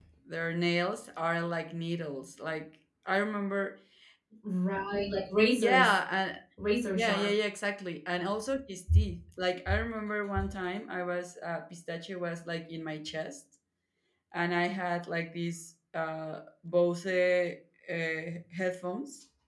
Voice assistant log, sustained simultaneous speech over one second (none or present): none